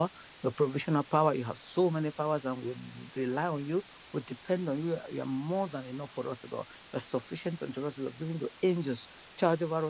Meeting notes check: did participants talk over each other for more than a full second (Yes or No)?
No